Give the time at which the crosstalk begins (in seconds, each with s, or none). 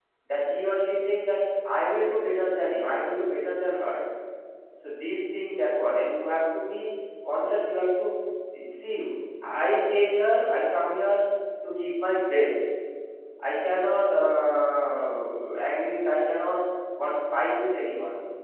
none